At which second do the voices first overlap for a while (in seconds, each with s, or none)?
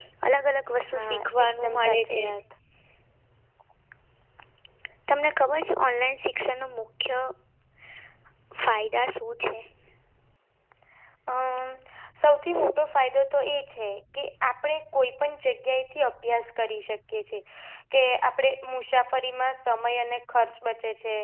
0.9 s